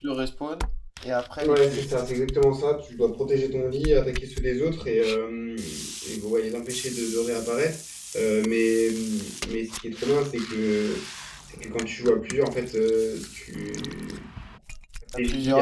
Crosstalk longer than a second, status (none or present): none